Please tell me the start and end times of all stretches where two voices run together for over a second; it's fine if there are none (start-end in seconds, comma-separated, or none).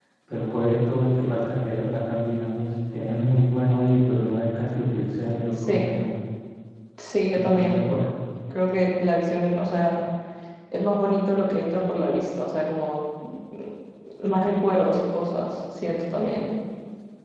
none